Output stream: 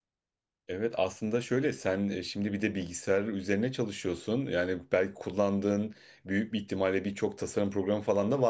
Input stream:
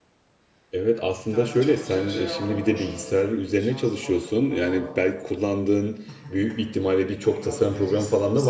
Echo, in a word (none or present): present